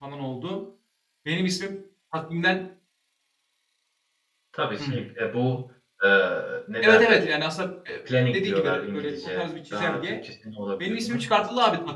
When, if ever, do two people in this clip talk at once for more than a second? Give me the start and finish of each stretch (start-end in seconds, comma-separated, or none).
8.3-10.1